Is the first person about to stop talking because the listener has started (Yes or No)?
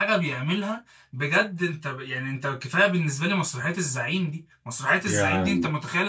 No